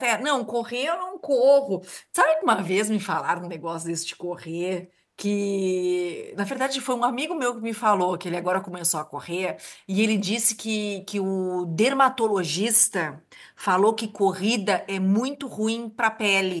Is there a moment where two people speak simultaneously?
No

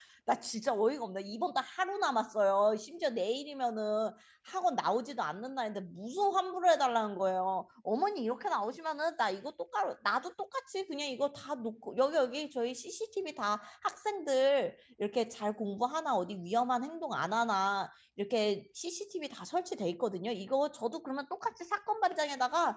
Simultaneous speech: No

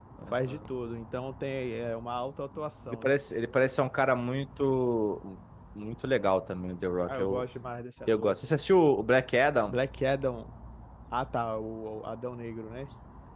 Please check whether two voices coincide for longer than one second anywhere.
No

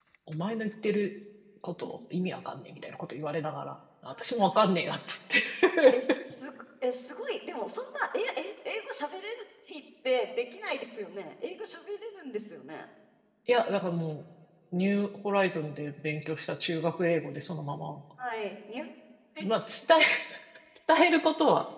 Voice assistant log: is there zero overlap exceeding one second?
Yes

